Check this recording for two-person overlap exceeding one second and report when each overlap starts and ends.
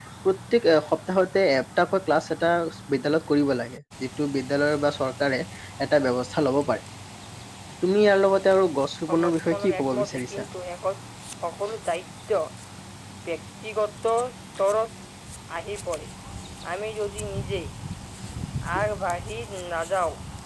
9.1-10.3

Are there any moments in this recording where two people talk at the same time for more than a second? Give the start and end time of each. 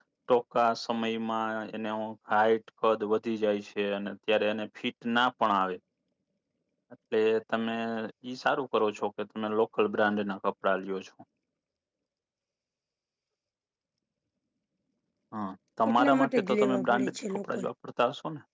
15.9-17.6

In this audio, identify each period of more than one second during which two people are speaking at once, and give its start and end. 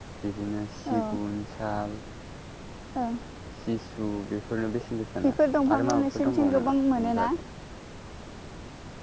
5.8-7.3

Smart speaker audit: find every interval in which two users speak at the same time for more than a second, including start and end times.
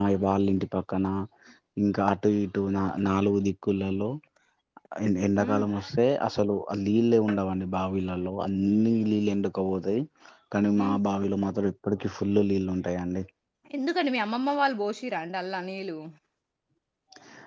none

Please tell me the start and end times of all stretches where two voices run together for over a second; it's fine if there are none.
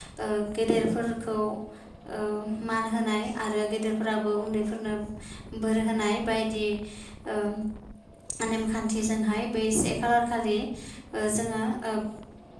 none

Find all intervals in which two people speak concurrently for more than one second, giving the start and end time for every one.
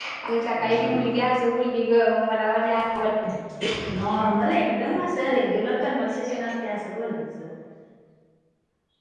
none

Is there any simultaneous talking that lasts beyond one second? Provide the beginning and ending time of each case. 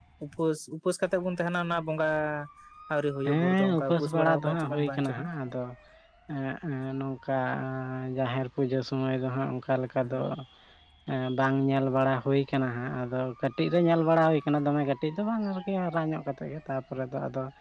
3.2-5.3

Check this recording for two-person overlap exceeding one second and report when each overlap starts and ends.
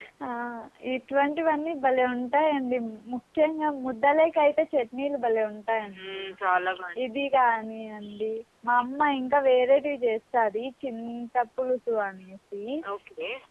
none

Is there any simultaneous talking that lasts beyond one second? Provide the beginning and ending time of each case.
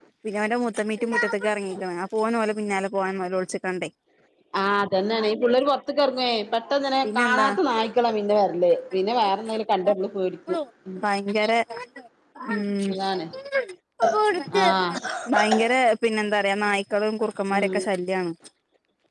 none

